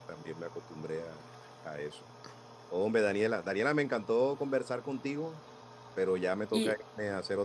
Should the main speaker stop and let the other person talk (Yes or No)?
No